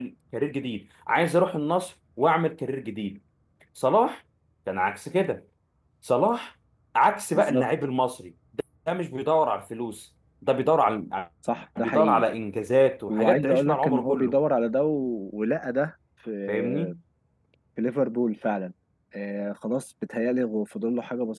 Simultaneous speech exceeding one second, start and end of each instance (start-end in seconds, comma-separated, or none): 13.1-14.4